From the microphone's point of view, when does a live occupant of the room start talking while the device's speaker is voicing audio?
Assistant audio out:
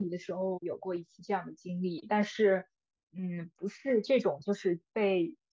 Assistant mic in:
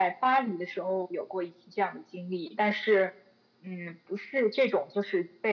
none

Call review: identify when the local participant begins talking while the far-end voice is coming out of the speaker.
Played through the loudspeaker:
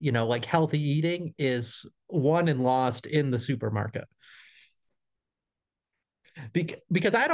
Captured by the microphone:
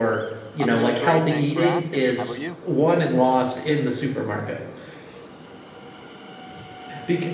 0.6 s

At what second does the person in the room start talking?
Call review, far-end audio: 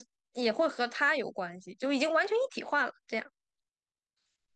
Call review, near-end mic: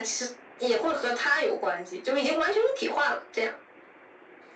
none

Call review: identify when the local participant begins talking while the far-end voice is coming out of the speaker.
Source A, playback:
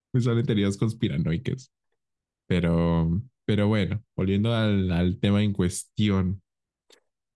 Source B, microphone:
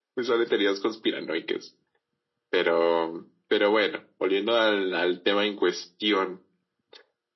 none

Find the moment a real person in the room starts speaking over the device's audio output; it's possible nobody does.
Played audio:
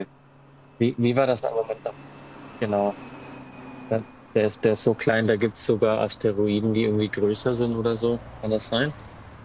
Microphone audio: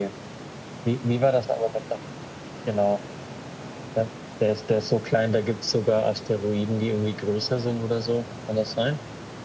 none

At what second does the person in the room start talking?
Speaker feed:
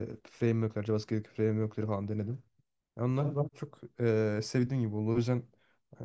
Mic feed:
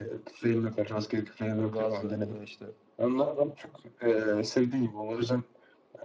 1.6 s

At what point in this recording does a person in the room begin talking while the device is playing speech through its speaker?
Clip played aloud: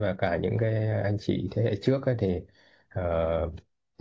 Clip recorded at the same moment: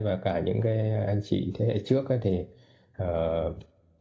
none

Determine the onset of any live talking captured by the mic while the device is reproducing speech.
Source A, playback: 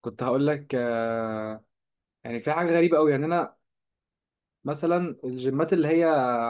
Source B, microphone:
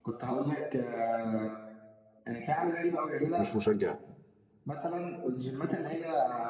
3.4 s

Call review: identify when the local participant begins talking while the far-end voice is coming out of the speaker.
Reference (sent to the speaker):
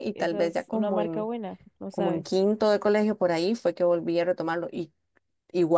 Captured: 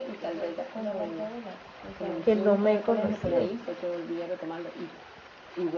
2.2 s

